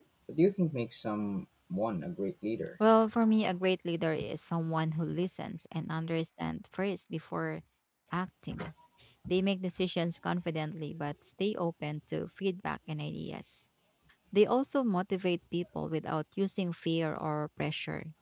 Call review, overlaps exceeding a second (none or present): none